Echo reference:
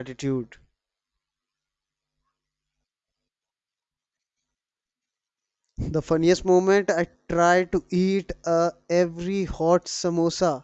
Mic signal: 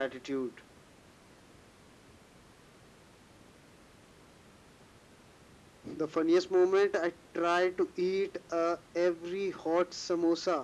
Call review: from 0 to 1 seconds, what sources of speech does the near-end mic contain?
echo only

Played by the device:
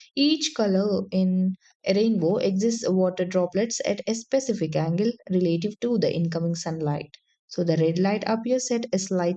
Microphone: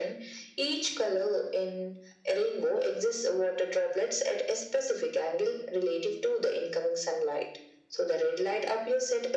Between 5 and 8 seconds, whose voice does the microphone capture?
echo only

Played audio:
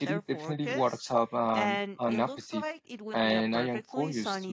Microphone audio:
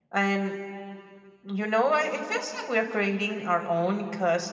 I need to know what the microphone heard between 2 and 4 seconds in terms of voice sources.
user only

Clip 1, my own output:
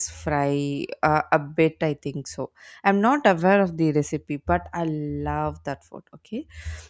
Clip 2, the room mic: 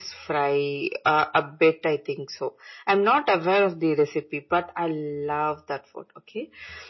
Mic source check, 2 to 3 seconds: echo only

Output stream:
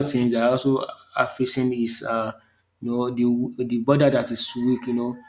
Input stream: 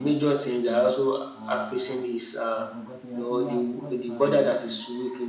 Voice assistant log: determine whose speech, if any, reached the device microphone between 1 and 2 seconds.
both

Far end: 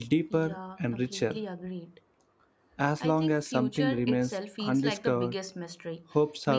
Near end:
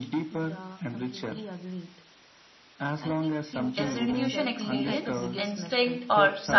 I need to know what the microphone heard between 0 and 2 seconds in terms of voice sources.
echo only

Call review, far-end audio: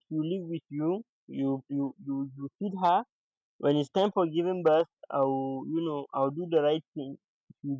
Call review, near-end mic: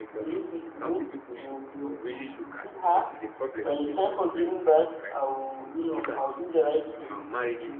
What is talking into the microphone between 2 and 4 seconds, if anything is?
both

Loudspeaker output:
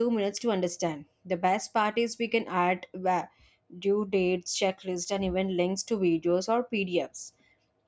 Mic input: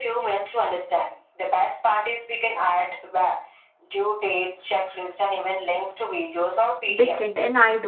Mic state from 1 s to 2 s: echo only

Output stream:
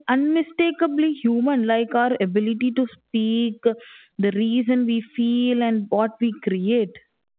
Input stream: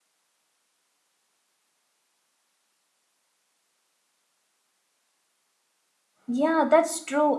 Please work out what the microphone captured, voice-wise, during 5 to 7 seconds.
user only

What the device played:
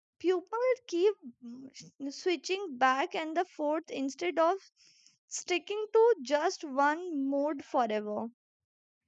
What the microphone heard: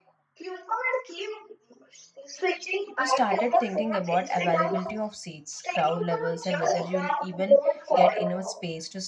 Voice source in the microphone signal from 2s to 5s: both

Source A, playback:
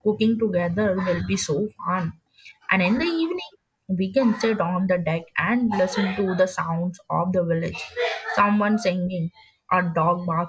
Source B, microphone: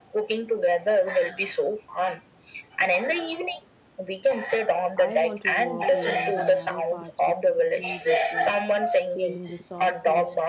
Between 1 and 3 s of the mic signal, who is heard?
echo only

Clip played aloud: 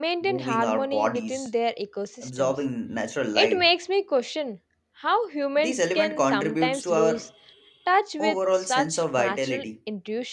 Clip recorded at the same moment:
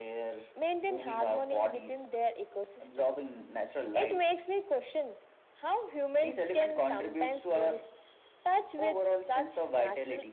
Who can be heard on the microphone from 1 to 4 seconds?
echo only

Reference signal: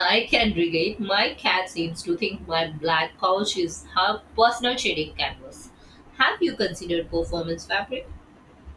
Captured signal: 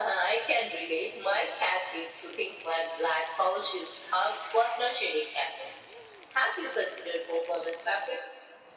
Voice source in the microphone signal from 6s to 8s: echo only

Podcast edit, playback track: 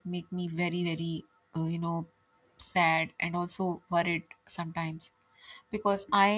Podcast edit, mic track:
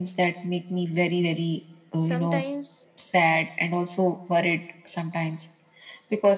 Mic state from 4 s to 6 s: echo only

